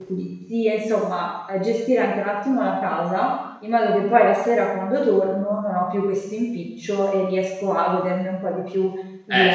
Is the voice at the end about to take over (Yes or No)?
Yes